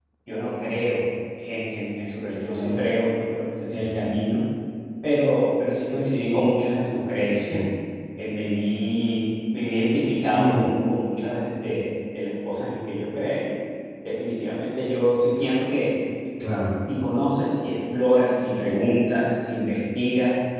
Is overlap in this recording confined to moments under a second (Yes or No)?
Yes